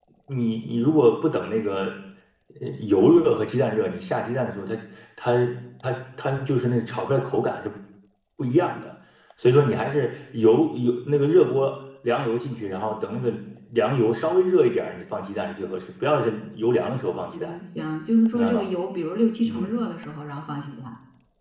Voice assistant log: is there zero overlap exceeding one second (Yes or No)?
Yes